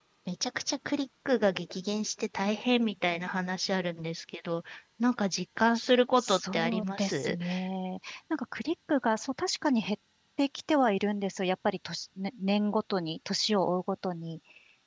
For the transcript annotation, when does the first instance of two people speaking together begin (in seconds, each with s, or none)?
6.2 s